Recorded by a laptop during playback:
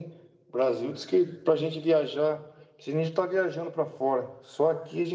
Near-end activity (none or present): none